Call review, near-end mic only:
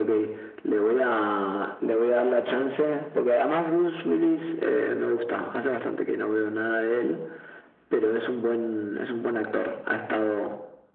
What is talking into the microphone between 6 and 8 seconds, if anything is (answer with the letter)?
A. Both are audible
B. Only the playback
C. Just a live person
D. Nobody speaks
B